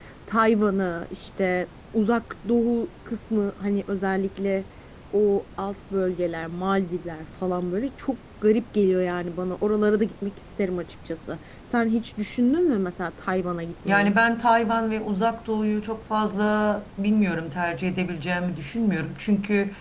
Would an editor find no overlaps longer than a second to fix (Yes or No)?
Yes